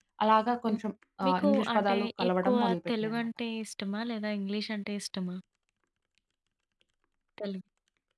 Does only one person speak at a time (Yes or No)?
No